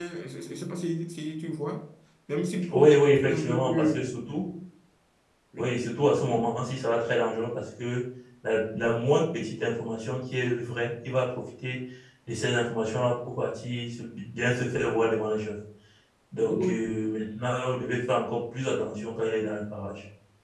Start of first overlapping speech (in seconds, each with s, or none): 2.7 s